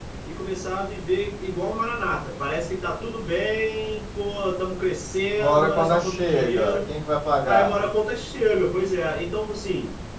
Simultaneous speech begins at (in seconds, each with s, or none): 5.4 s